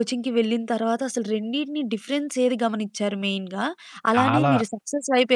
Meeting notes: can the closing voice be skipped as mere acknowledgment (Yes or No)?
Yes